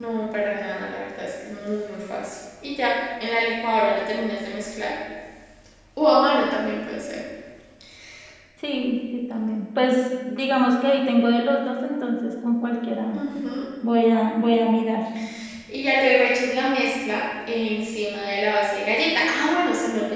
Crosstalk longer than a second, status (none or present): none